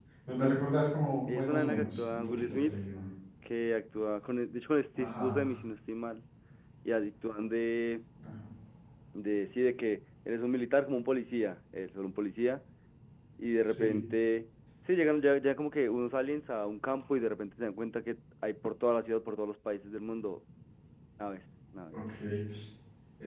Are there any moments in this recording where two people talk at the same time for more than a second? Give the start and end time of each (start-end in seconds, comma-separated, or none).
1.3-2.7